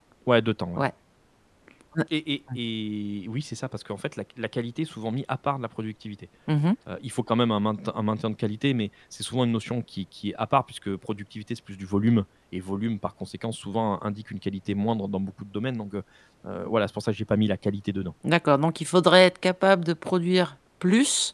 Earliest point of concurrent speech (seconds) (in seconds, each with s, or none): none